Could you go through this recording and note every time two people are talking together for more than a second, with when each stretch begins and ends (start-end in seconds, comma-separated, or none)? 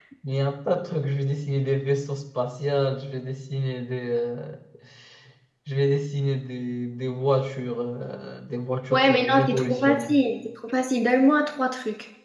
8.9-10.1